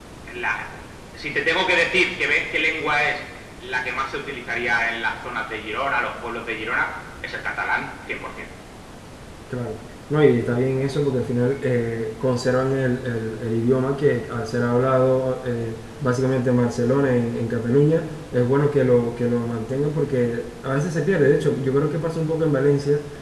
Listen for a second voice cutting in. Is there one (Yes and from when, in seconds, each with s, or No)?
No